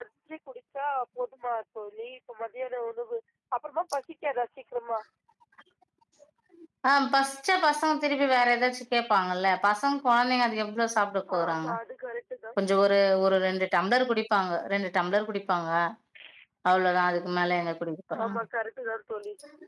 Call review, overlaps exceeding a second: none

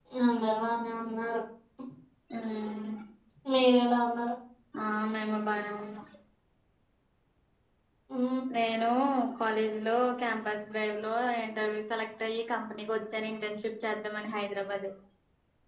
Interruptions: none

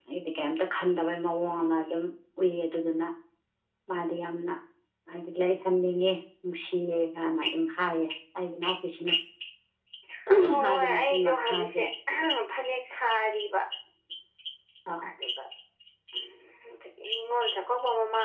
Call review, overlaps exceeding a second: present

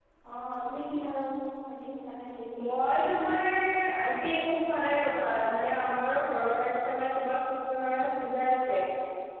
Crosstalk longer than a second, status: none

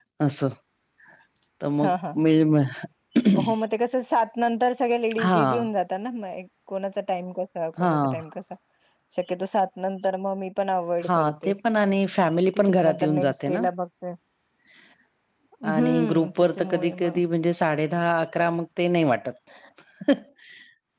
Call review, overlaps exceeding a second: present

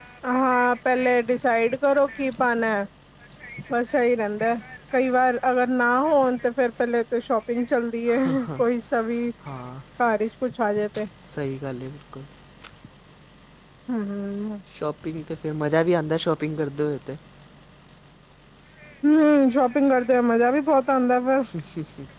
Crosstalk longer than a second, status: none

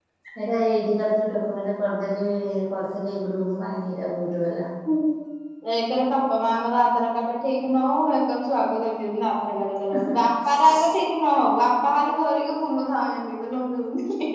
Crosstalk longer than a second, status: none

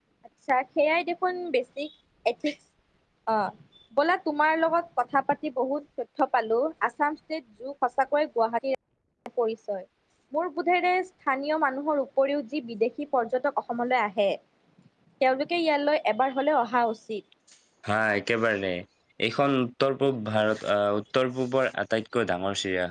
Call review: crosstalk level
none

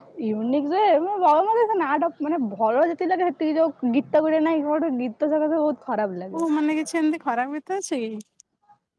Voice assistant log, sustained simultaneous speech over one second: none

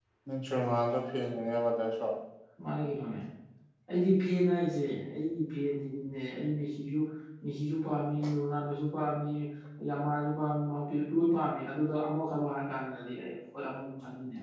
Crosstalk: none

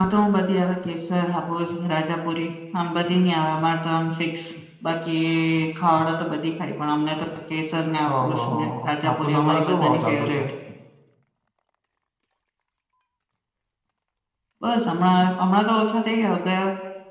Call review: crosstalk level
present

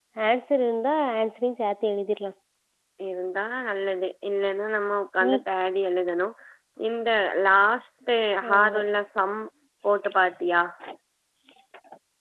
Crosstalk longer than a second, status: none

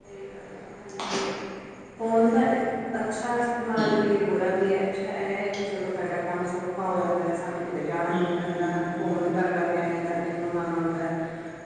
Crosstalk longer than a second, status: present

